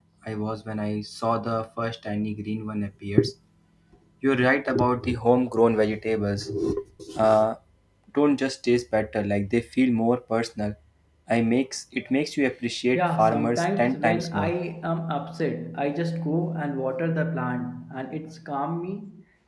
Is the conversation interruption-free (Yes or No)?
No